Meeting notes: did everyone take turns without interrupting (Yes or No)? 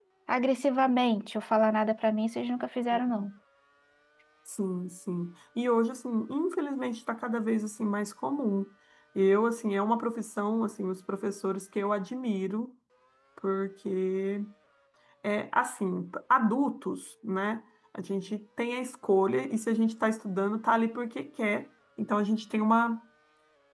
Yes